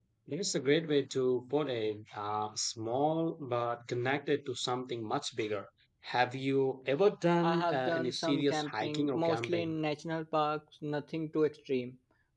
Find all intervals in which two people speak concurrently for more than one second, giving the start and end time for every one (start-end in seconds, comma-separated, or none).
7.4-9.7